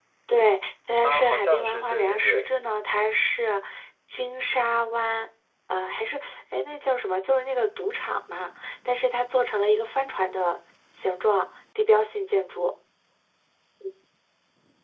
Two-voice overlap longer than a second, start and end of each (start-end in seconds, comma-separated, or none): 1.0-2.5